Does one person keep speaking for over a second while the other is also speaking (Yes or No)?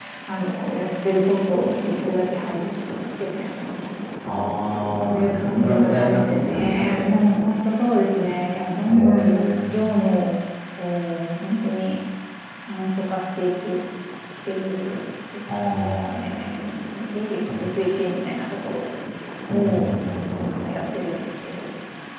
Yes